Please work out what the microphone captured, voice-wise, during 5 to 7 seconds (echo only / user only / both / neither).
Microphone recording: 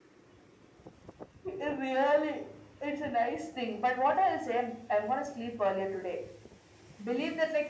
echo only